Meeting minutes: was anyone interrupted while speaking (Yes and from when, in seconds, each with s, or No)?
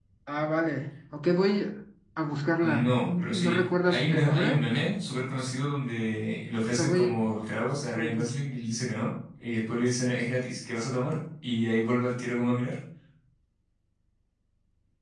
Yes, from 2.6 s